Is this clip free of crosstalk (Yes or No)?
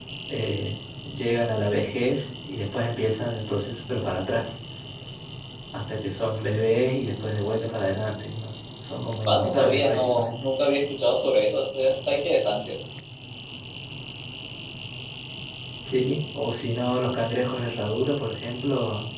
No